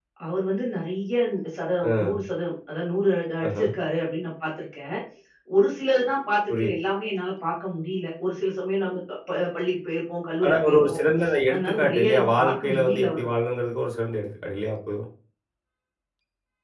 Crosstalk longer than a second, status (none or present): present